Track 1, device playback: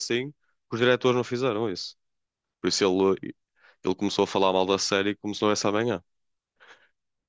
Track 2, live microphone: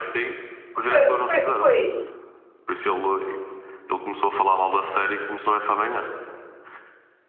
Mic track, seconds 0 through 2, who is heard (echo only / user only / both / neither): both